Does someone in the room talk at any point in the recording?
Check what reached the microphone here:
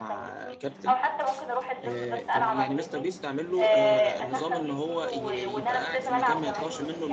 Yes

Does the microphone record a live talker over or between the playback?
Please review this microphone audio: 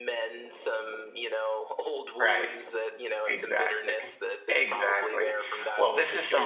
Yes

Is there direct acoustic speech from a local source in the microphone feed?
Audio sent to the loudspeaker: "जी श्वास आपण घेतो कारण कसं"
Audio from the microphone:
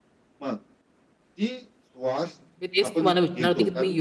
Yes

